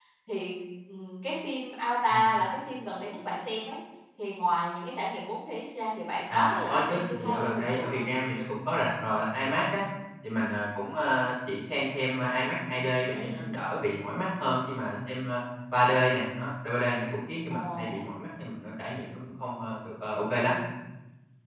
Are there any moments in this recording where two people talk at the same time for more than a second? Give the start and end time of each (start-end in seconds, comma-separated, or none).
6.3-8.0